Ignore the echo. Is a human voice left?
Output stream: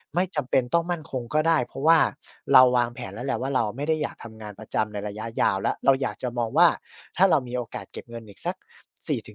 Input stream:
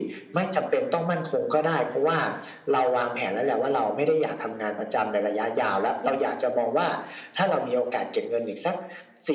No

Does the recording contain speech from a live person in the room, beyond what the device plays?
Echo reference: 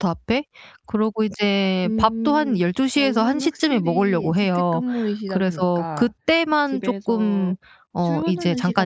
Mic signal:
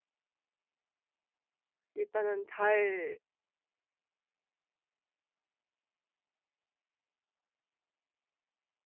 Yes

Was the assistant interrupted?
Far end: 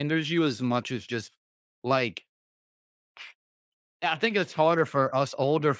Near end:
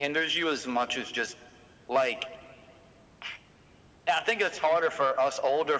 No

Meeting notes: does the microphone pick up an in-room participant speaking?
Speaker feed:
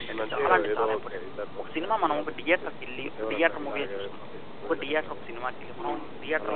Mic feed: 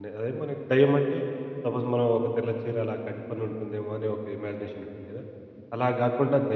Yes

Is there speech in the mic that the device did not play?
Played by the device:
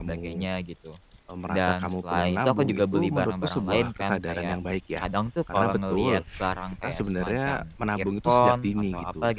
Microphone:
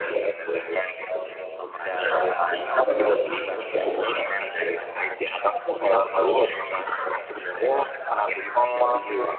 No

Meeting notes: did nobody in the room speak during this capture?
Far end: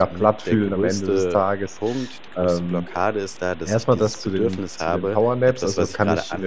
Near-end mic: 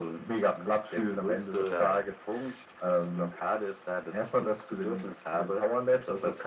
No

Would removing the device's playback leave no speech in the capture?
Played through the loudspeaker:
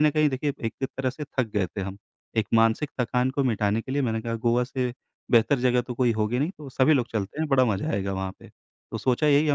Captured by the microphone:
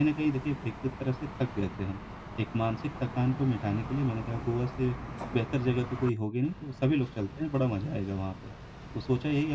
Yes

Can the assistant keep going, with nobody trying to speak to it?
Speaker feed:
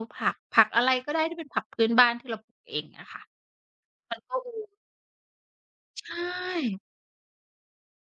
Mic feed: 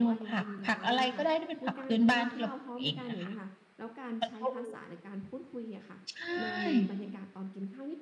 No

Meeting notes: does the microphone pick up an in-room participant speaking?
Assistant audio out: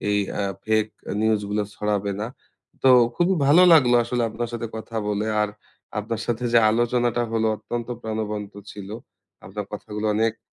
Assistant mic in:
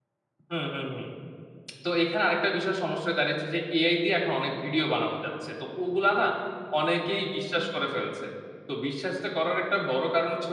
Yes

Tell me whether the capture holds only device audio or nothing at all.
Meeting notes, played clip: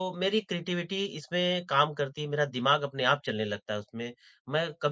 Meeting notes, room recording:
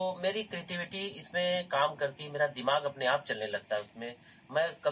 Yes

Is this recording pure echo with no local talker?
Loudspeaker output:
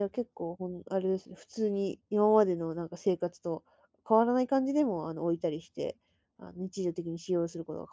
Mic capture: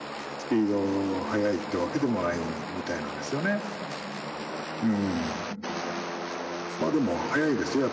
No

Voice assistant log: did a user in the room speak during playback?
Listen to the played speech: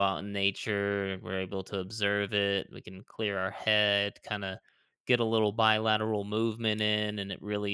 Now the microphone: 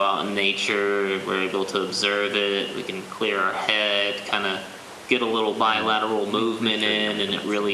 Yes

